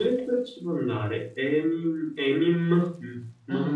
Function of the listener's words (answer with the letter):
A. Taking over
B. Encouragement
A